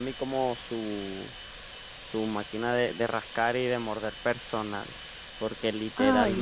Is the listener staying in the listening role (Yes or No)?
Yes